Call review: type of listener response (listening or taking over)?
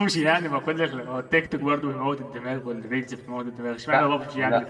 taking over